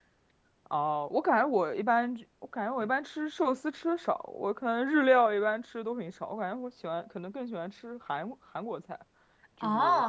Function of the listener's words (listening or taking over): taking over